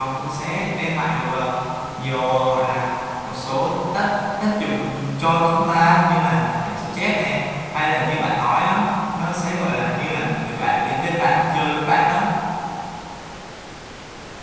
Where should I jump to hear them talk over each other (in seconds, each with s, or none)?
none